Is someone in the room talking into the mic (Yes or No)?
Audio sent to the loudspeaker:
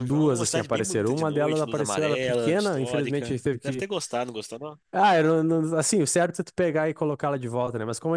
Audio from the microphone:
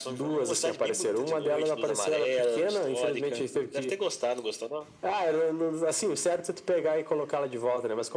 No